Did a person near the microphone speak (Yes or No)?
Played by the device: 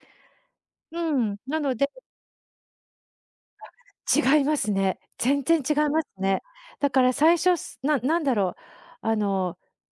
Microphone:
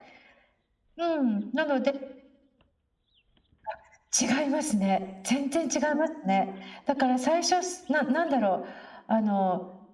No